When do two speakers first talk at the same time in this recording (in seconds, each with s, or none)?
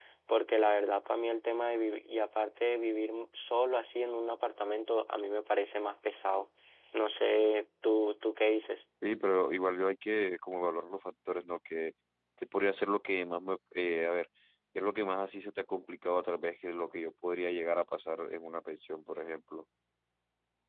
none